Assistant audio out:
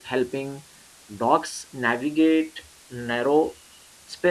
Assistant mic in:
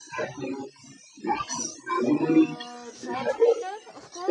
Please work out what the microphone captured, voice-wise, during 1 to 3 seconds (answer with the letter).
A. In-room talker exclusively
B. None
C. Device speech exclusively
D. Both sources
D